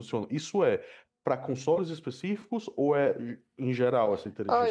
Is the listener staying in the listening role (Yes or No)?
No